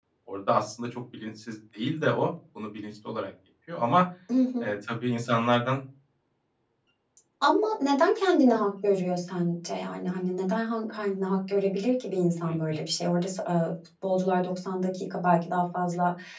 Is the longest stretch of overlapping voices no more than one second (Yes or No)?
Yes